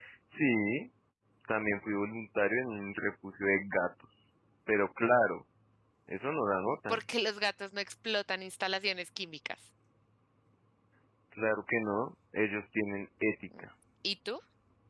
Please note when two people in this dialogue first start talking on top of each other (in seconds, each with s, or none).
none